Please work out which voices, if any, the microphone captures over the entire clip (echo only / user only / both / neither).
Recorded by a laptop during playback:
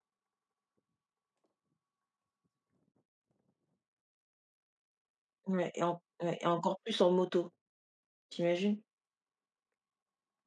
user only